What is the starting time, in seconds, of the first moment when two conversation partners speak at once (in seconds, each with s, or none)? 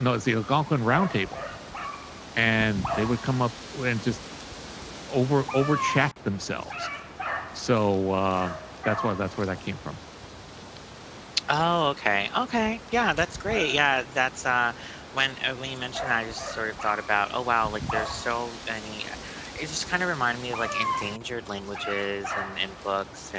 none